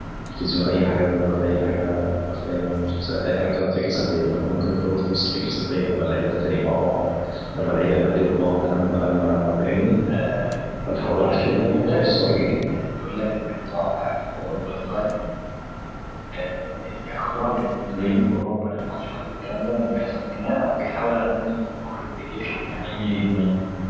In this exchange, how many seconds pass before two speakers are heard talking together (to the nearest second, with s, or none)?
11 s